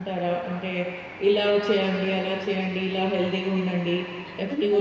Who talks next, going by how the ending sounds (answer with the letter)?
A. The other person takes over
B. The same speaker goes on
A